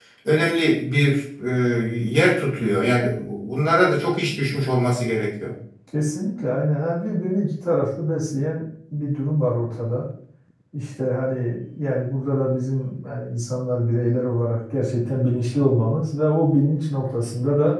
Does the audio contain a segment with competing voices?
No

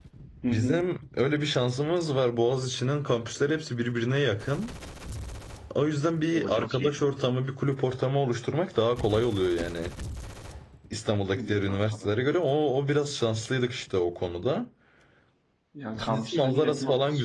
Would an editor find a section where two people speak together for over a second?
Yes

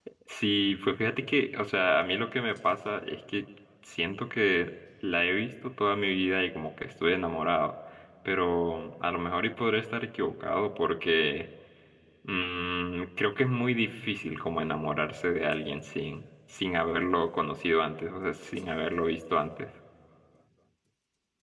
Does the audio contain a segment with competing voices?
No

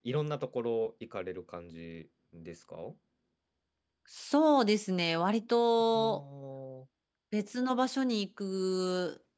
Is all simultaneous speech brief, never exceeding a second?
Yes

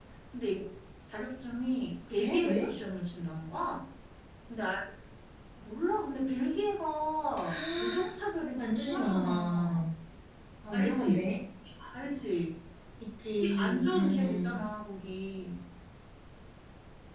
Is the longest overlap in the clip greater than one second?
Yes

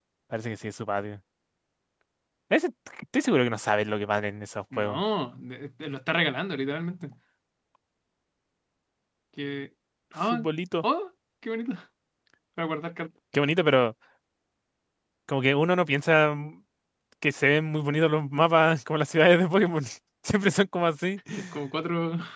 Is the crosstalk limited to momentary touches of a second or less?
Yes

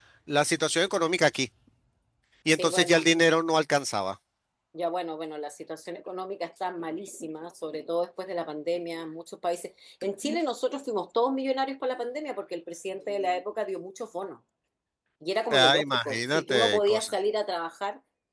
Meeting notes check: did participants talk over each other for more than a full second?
Yes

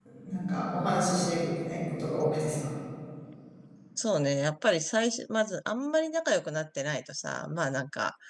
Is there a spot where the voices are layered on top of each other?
No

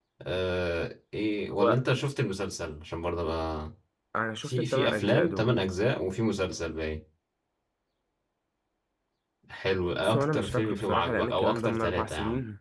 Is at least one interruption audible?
Yes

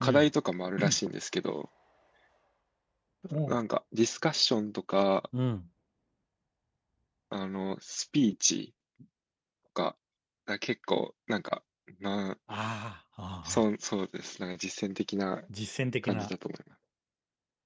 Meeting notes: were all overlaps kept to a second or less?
Yes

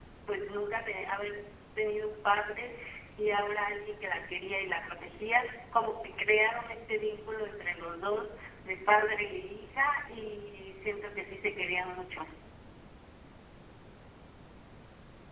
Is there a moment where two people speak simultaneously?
No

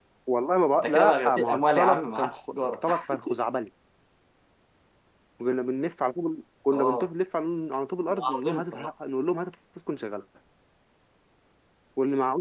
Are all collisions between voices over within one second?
No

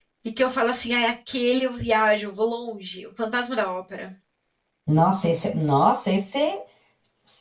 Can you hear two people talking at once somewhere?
No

